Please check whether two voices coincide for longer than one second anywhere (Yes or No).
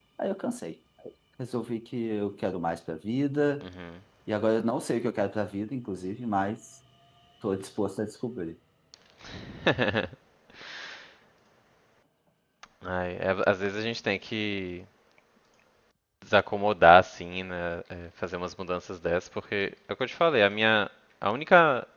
No